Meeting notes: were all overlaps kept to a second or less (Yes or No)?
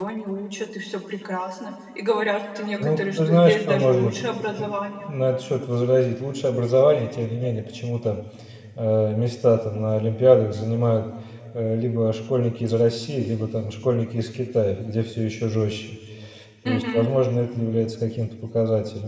No